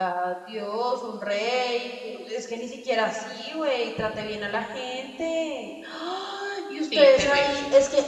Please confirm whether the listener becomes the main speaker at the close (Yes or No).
No